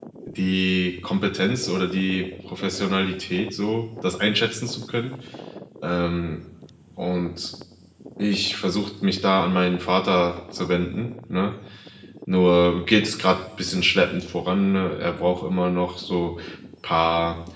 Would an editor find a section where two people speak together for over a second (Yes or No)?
No